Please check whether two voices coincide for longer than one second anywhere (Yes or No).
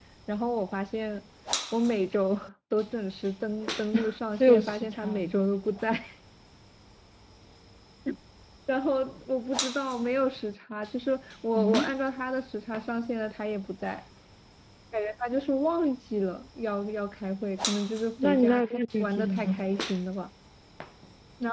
Yes